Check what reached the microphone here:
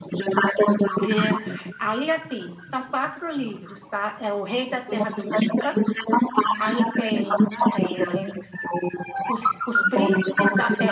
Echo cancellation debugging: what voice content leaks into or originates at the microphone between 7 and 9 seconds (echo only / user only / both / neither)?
both